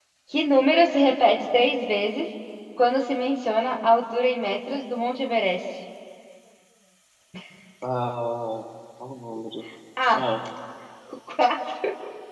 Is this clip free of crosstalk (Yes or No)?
Yes